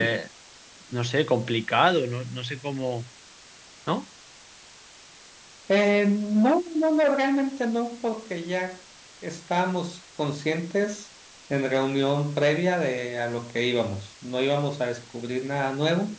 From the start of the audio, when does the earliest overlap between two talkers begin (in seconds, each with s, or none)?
none